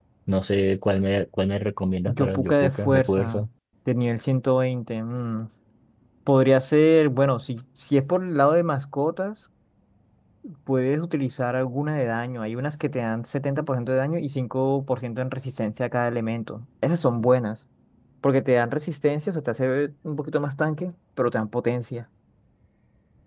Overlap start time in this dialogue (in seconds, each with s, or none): 2.1 s